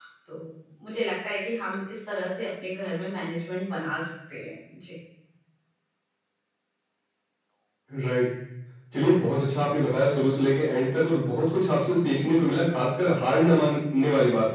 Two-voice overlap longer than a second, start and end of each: none

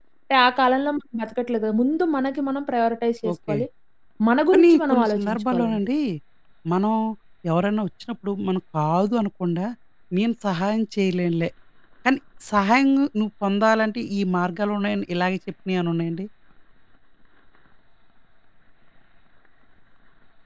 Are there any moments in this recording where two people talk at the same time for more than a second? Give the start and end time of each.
4.5-5.8

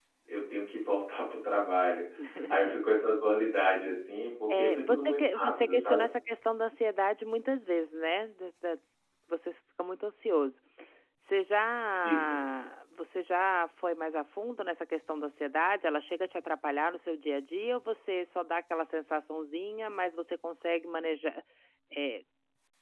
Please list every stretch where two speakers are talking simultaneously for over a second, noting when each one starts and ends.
4.5-6.0

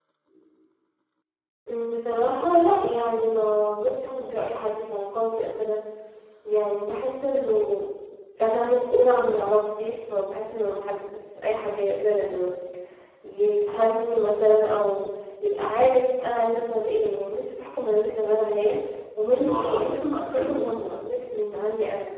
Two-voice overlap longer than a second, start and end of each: 19.4-20.7

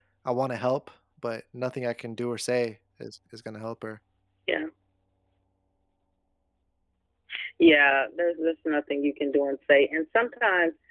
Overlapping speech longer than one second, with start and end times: none

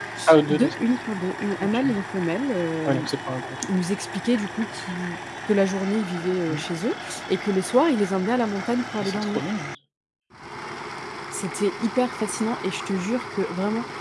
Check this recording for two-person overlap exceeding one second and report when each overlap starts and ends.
none

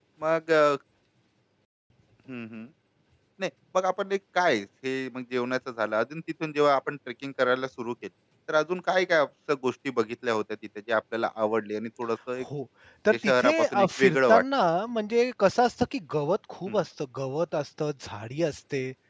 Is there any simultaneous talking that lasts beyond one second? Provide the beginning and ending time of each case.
13.1-14.4

